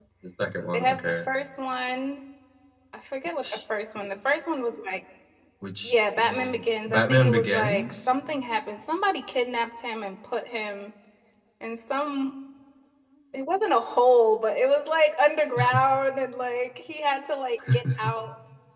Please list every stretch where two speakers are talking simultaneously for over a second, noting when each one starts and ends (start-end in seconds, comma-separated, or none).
5.8-7.9